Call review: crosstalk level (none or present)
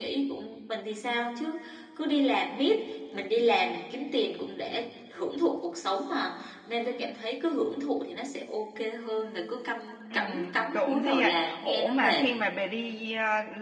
present